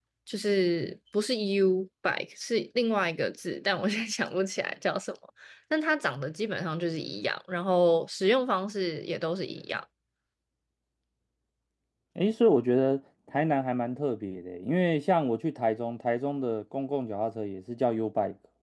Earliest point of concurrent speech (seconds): none

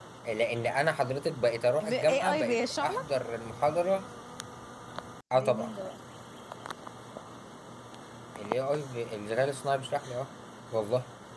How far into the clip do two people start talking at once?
1.8 s

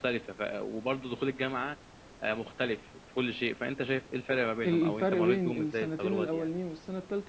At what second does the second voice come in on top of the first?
4.6 s

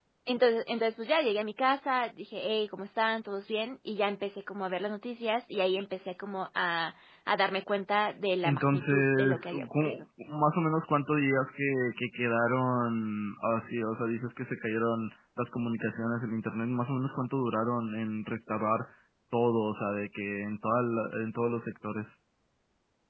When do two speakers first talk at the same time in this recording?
8.4 s

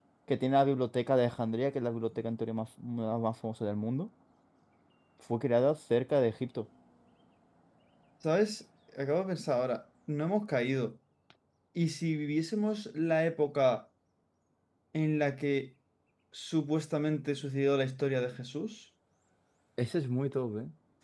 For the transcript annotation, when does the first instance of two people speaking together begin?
none

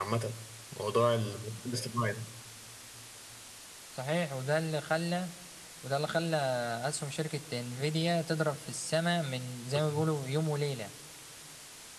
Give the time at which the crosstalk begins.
none

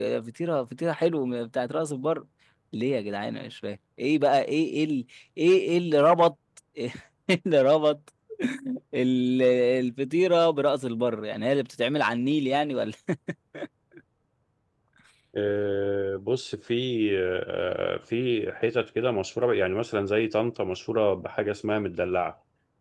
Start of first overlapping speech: none

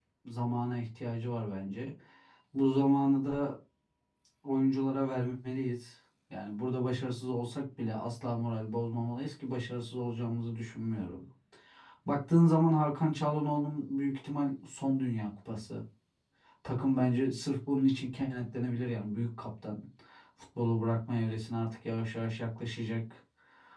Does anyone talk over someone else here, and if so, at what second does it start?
none

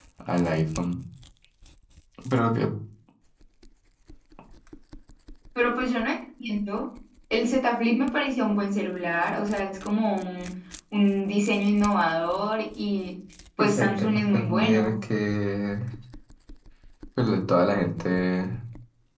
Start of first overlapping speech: 13.6 s

